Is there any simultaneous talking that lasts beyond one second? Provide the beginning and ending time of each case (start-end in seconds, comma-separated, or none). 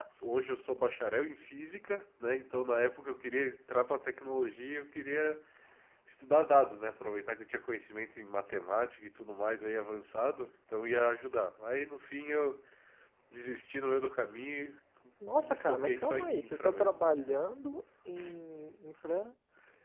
15.4-17.0